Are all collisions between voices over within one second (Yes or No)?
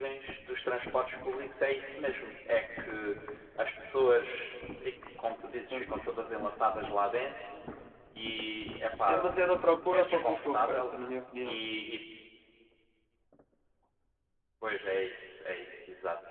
No